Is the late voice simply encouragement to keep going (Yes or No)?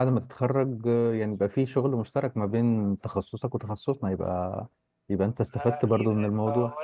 No